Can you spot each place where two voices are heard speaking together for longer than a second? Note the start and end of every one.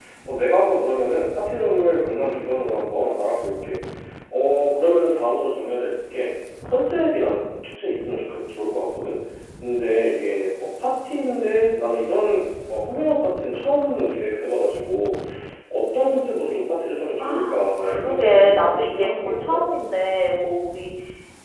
17.2-19.6

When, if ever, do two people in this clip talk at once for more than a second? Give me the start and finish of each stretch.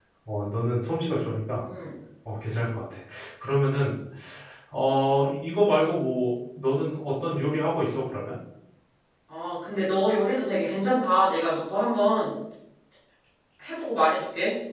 none

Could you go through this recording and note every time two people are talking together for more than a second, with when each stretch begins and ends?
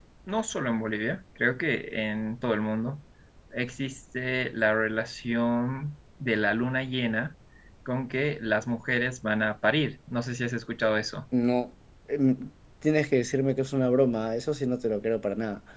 none

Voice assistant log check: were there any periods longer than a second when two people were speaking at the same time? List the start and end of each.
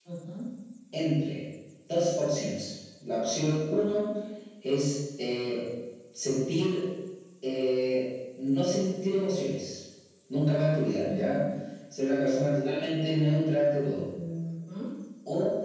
none

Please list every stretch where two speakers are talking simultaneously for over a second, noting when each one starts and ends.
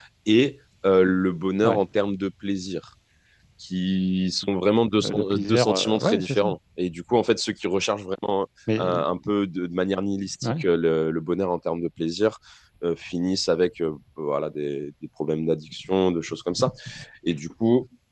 5.0-6.4

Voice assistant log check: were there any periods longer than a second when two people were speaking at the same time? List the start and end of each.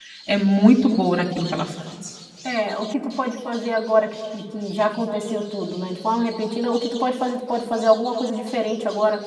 none

